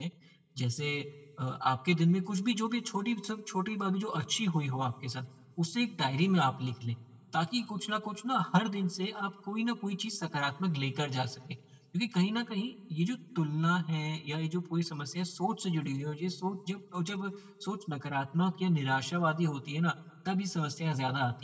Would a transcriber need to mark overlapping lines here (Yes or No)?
No